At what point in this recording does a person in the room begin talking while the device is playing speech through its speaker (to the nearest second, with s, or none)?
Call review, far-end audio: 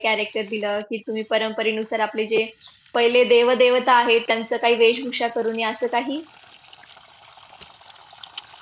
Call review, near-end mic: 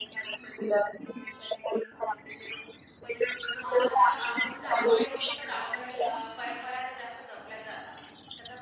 4 s